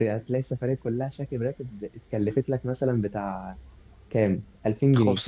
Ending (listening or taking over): taking over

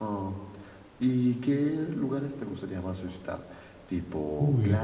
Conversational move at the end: listening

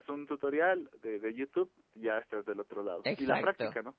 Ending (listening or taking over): taking over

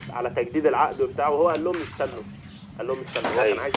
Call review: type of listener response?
listening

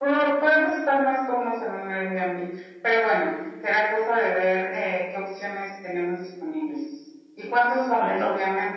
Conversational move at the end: listening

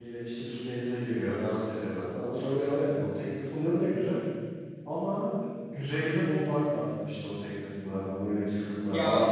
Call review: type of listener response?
listening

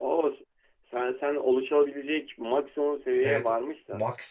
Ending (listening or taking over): taking over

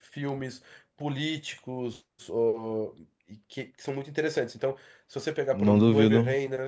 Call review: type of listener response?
listening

